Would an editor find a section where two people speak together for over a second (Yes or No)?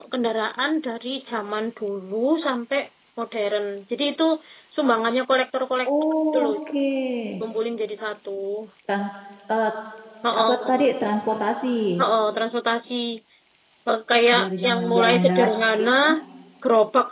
Yes